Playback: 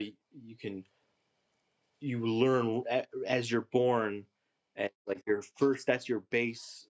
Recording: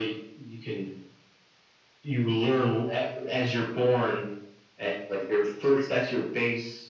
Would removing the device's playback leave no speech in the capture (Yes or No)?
Yes